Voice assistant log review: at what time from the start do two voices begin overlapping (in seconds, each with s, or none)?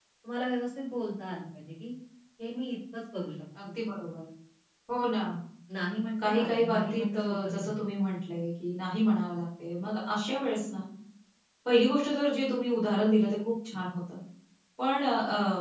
6.2 s